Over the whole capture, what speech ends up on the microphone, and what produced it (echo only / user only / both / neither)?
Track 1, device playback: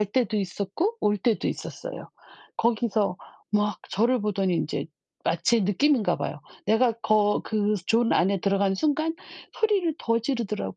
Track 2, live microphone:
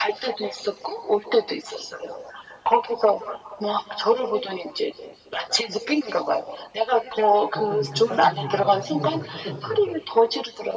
both